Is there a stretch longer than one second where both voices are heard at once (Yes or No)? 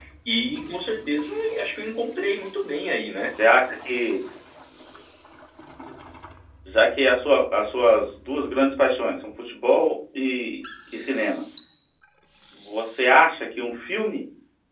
No